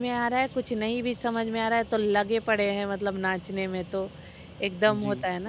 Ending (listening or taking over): listening